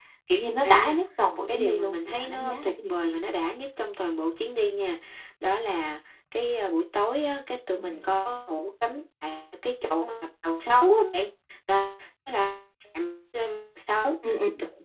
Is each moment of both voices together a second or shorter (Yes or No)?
No